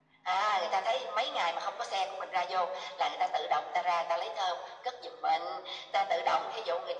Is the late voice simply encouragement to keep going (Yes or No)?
Yes